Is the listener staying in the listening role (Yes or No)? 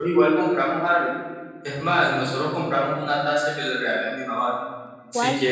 Yes